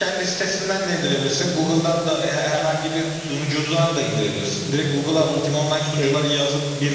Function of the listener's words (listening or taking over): listening